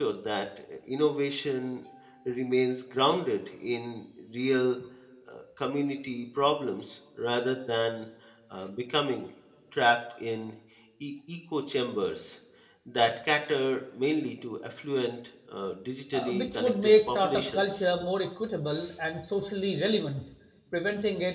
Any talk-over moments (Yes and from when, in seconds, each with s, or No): Yes, from 16.1 s